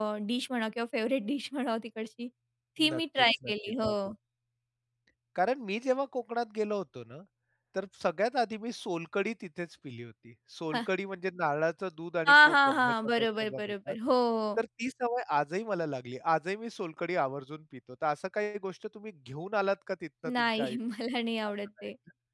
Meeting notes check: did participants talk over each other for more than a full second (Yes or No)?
Yes